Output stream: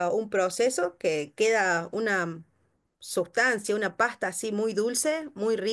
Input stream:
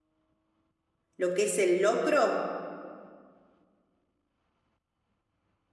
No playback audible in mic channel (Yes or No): Yes